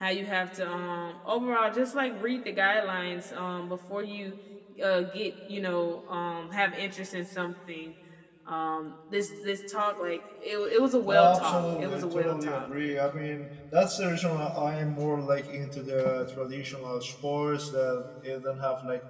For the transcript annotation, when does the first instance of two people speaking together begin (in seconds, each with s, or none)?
11.1 s